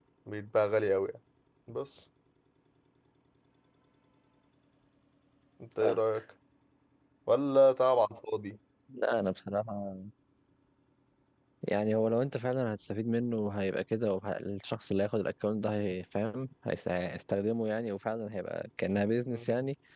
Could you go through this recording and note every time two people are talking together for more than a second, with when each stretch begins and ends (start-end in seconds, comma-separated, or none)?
none